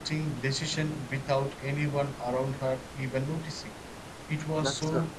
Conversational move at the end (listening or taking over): listening